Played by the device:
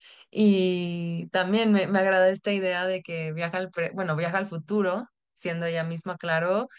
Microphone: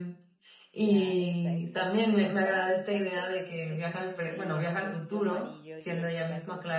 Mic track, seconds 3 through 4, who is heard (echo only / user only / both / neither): both